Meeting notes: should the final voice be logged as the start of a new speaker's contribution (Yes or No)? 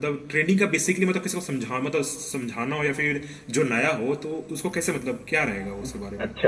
Yes